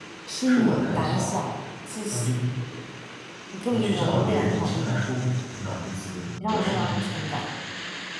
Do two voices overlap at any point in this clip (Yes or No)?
Yes